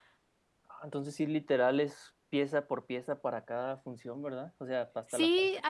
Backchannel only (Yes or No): No